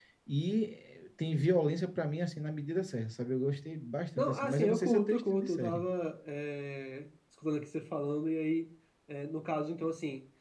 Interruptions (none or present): present